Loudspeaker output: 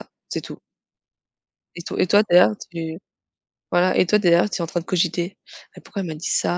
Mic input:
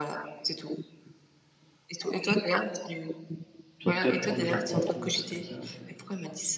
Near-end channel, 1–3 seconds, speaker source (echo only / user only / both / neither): echo only